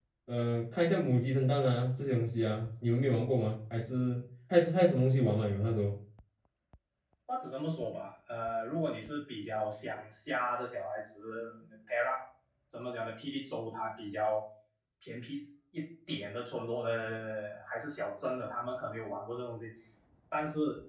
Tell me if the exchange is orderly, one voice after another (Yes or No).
Yes